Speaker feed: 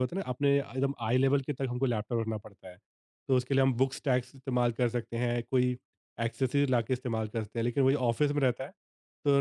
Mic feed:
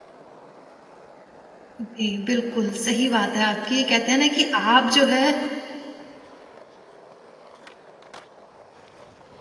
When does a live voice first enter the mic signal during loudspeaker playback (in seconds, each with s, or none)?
1.8 s